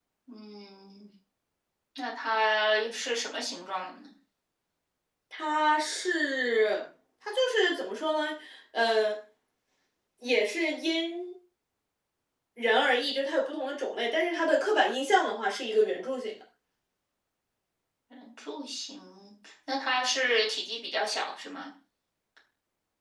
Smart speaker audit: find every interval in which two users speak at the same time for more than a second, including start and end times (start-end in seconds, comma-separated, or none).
none